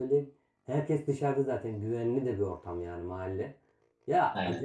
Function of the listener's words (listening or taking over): listening